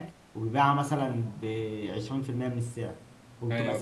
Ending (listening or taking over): listening